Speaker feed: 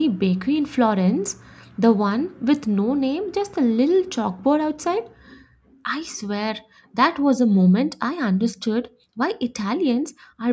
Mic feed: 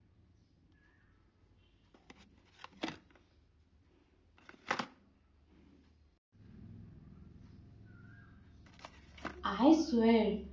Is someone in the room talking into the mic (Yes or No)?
Yes